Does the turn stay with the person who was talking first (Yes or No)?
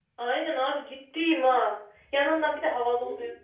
Yes